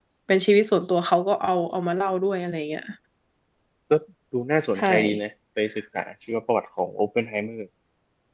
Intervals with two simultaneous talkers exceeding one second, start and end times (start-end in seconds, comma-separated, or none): none